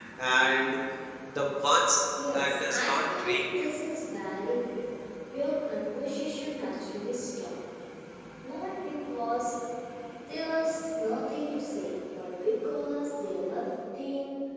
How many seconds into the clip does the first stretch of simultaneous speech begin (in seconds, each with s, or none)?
2.2 s